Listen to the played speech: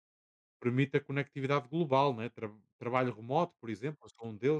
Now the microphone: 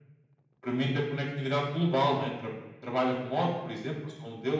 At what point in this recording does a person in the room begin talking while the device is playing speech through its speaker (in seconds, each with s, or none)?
none